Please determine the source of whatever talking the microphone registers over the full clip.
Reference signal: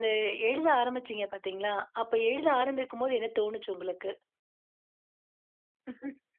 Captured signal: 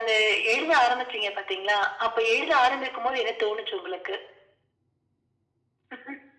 echo only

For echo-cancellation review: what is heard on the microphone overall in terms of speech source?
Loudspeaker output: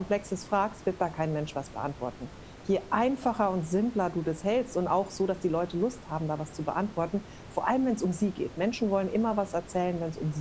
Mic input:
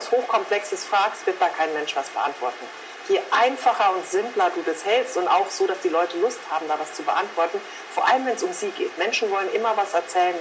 echo only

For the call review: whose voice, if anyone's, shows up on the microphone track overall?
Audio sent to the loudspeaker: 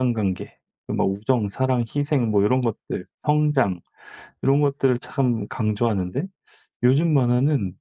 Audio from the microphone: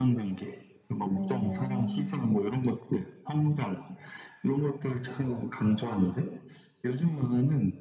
both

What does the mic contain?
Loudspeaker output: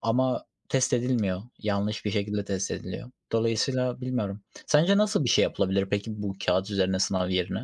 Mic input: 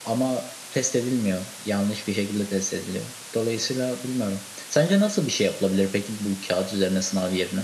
echo only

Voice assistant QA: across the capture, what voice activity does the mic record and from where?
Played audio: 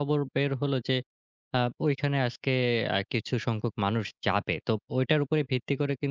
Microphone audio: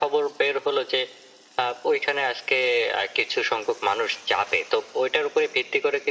echo only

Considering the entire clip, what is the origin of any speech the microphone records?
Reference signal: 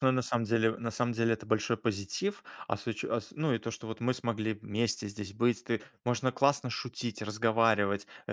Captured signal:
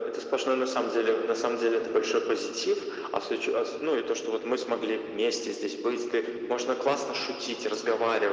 echo only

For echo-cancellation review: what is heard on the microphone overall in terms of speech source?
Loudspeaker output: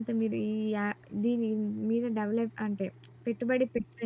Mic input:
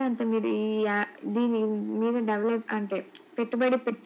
echo only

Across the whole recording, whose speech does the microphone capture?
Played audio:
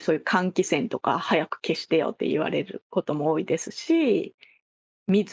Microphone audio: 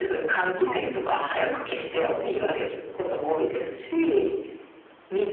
both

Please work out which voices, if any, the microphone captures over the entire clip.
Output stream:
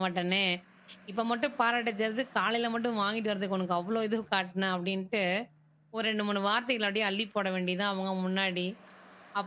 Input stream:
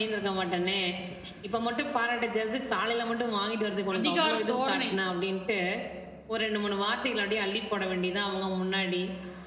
both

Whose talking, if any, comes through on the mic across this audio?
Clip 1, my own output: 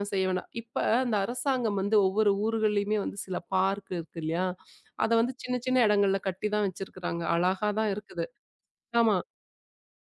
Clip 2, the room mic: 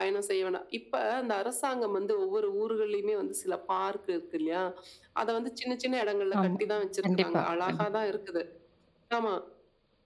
both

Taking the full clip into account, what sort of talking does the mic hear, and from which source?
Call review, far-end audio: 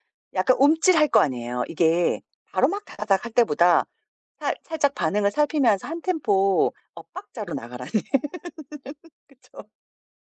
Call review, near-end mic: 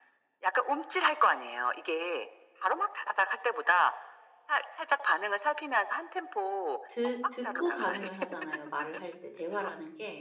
both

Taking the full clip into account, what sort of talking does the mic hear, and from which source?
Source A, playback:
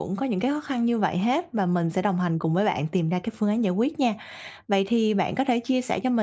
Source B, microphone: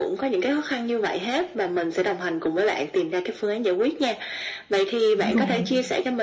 both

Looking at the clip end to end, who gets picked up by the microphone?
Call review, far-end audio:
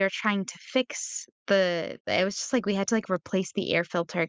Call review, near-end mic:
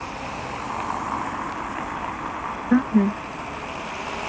user only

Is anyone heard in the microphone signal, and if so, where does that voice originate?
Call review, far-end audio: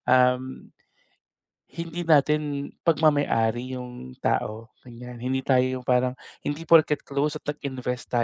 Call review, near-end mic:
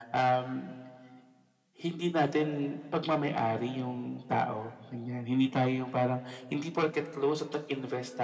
echo only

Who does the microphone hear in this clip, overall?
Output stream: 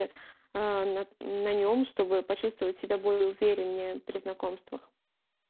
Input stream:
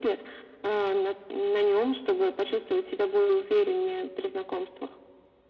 echo only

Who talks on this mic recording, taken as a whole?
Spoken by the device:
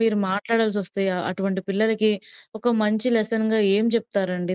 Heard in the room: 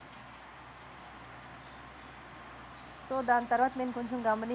user only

